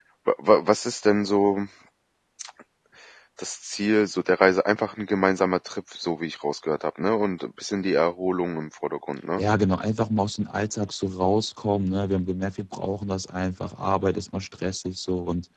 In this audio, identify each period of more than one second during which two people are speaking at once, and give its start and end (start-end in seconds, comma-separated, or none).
none